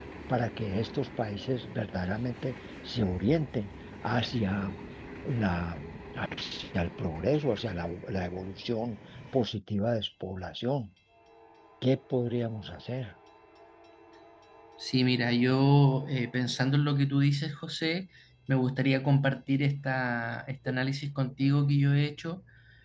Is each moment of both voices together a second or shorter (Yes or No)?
Yes